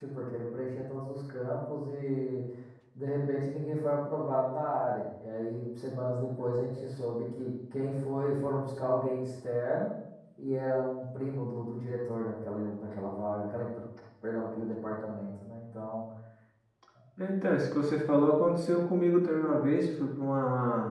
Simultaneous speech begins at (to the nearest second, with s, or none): none